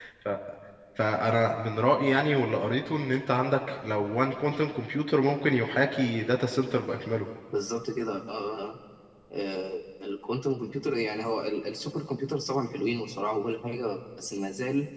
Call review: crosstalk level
none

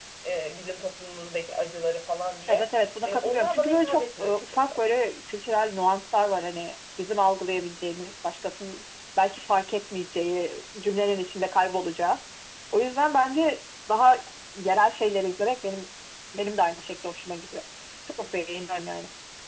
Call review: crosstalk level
present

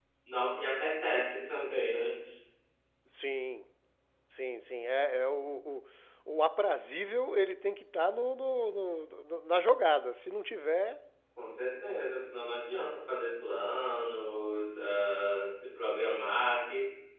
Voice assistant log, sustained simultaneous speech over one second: none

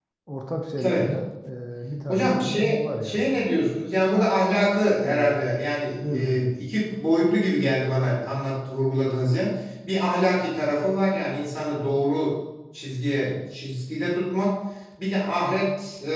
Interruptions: present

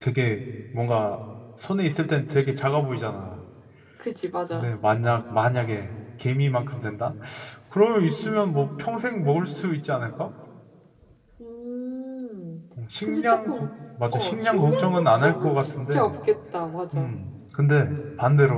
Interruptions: present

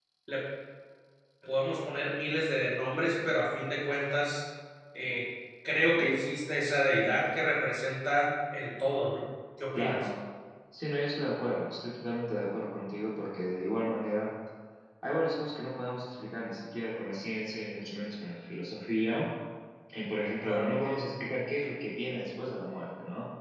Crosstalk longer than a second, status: none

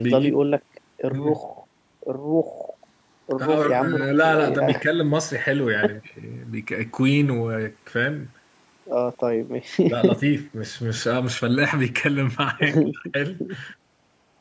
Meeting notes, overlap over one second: present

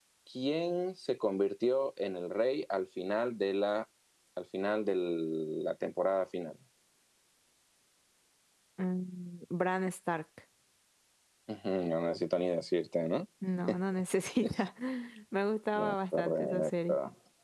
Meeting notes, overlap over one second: present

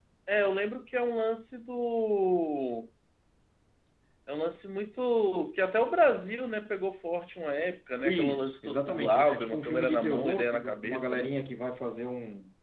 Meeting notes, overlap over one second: present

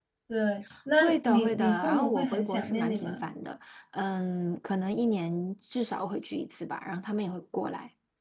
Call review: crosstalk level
present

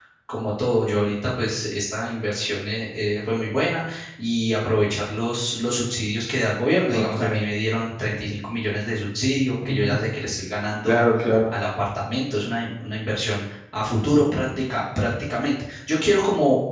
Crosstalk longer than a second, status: none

